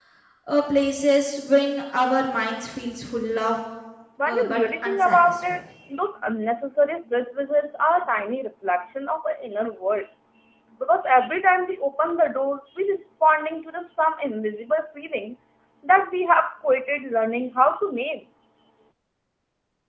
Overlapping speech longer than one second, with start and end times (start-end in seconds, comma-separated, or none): 4.3-5.6